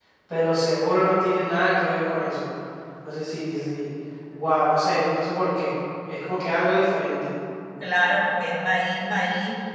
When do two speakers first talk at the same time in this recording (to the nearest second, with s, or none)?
none